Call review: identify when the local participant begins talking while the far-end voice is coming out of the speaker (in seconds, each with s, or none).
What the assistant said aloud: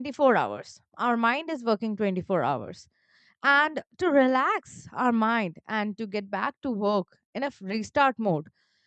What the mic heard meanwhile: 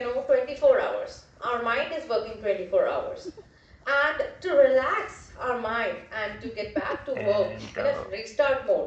7.1 s